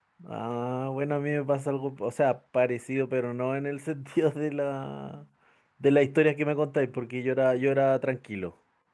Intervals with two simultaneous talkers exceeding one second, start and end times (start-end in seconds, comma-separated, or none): none